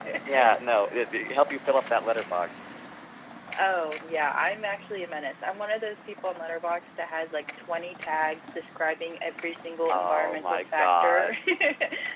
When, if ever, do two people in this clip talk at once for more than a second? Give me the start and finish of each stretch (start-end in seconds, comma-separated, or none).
9.9-11.3